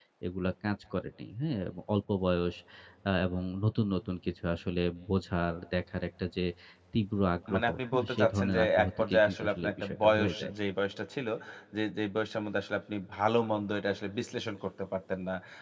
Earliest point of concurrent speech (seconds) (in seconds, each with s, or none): 7.5 s